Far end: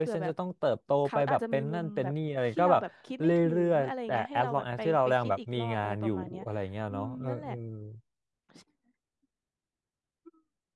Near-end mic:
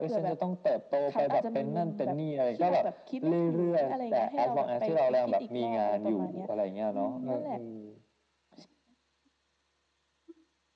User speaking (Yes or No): No